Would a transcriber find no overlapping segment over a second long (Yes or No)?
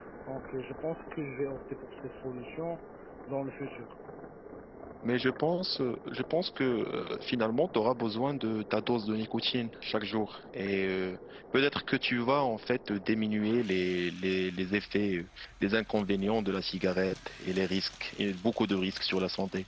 Yes